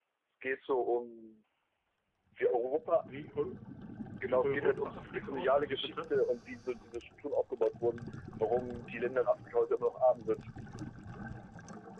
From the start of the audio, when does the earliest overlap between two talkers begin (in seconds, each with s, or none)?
4.3 s